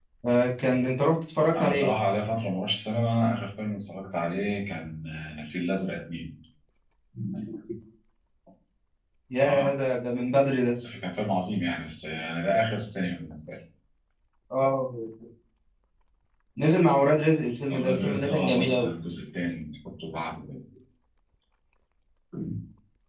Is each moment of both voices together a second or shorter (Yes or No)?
No